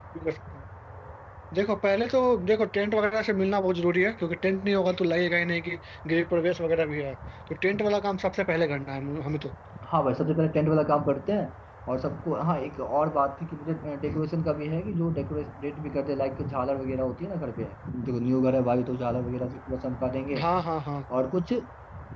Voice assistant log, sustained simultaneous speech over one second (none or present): none